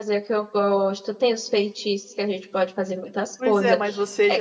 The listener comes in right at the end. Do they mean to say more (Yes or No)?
Yes